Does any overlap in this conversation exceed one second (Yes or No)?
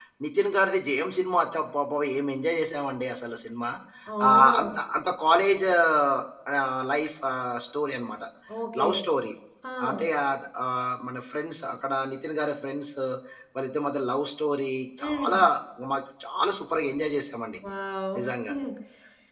No